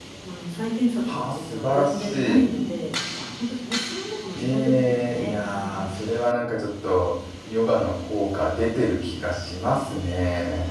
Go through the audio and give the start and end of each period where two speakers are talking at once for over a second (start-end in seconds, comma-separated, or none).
1.0-2.5, 4.3-5.8